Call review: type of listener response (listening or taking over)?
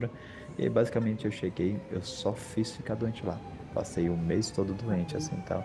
listening